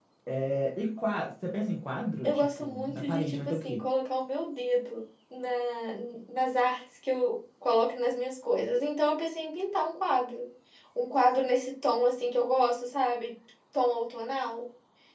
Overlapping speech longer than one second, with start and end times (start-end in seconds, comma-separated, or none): 2.2-3.8